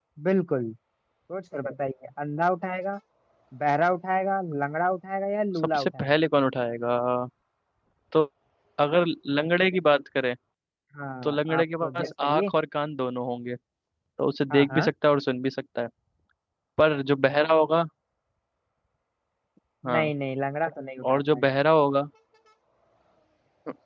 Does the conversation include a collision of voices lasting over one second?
Yes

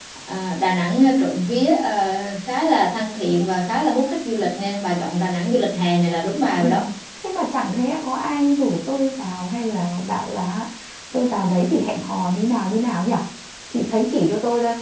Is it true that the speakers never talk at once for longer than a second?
Yes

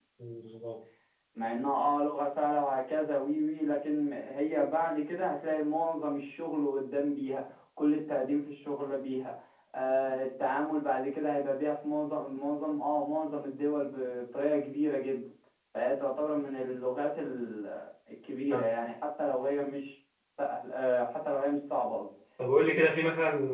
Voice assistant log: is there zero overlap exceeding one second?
Yes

